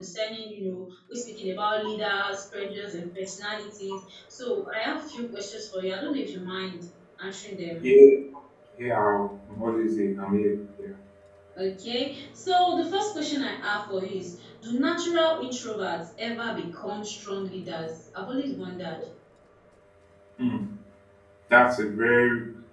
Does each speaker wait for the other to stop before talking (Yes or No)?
Yes